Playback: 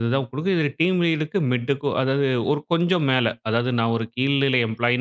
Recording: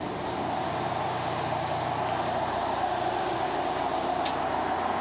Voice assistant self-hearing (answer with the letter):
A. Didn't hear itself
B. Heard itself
A